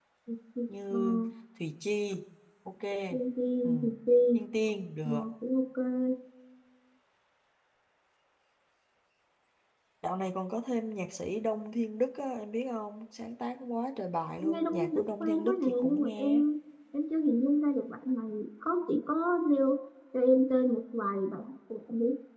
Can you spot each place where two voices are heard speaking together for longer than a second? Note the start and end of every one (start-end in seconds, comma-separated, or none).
14.4-16.4